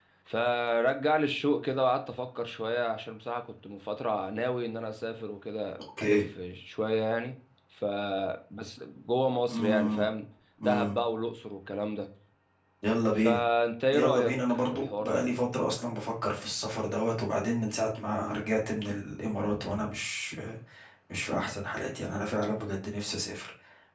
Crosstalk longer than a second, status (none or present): present